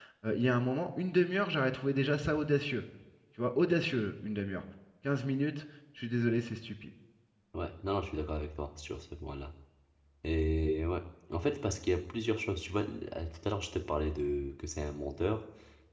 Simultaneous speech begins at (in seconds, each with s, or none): none